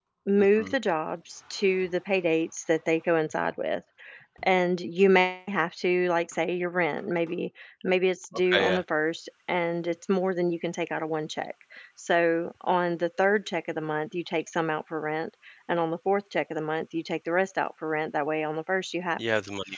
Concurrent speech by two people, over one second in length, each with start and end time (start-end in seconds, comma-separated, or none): none